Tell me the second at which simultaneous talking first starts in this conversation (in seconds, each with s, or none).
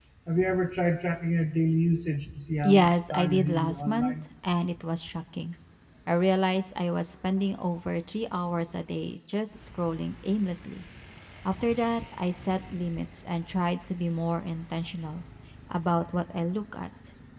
2.6 s